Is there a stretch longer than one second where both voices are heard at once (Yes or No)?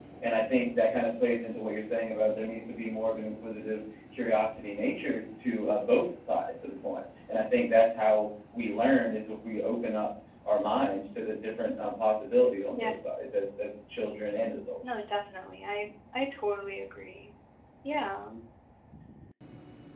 No